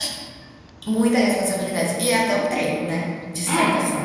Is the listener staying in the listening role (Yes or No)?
Yes